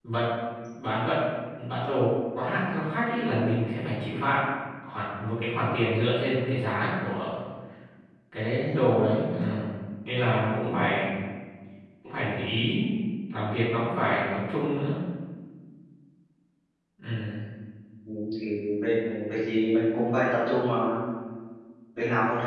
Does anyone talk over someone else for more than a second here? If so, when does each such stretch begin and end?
none

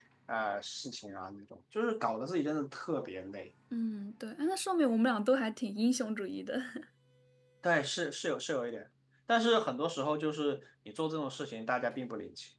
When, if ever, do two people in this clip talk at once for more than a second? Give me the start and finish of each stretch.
none

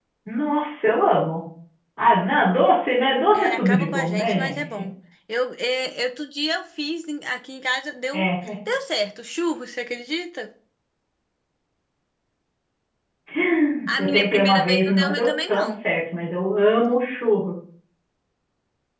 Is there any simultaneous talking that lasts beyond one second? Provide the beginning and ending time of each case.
3.3-4.9, 14.0-15.7

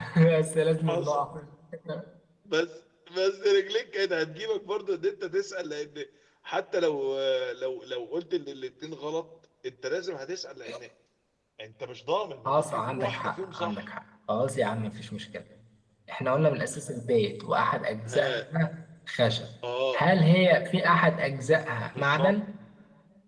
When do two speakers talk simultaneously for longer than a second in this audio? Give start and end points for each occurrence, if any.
12.4-13.8

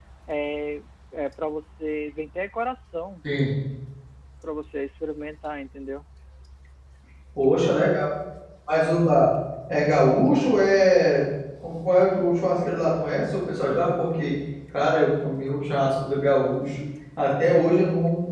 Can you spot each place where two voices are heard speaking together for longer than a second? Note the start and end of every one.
none

